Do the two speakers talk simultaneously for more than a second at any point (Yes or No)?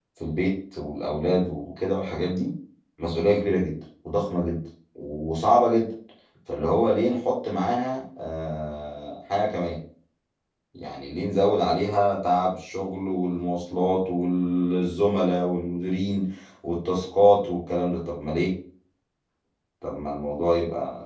No